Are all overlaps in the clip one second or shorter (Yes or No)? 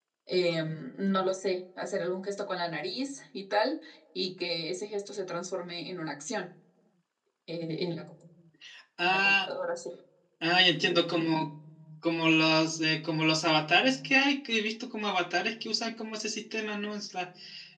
Yes